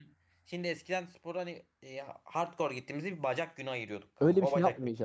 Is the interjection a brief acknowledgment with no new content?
No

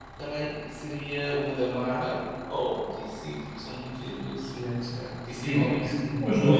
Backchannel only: No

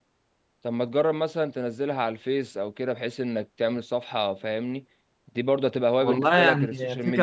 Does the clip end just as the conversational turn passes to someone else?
Yes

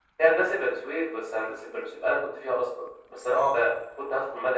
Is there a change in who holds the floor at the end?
No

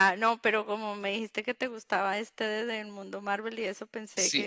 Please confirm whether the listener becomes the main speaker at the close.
Yes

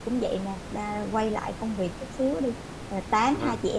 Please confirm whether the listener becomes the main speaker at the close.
No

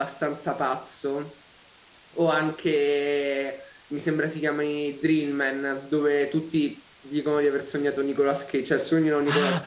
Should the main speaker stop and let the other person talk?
Yes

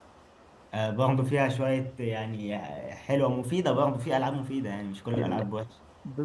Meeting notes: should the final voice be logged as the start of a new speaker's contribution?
Yes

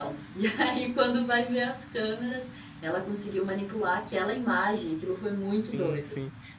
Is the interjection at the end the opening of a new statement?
Yes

